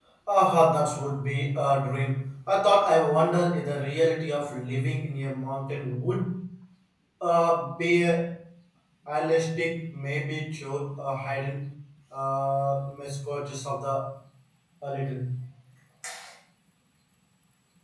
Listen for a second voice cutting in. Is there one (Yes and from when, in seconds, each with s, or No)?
No